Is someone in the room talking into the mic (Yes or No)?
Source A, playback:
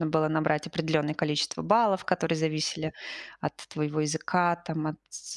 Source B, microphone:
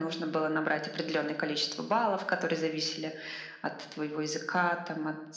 No